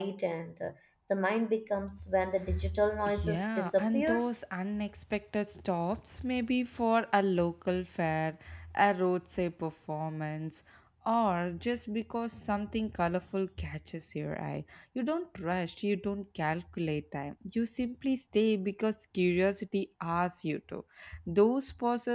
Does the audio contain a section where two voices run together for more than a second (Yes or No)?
Yes